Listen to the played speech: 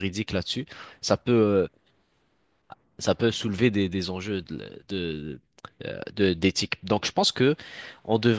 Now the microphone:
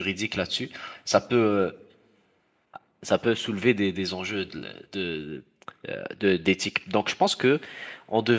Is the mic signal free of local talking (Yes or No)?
Yes